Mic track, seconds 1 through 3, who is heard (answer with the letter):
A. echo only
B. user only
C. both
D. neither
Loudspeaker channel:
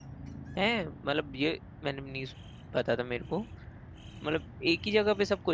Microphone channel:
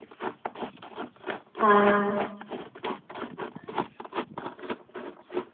B